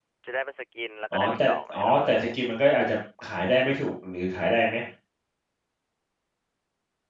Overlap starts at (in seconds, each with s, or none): 1.1 s